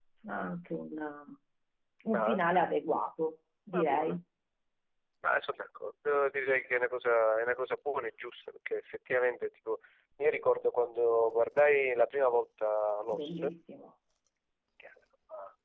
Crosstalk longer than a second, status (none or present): none